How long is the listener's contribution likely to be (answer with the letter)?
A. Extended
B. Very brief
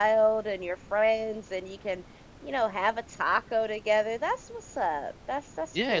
A